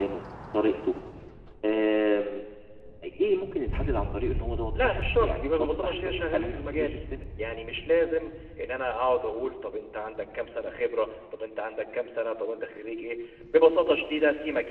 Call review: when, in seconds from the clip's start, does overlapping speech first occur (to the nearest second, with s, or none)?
5 s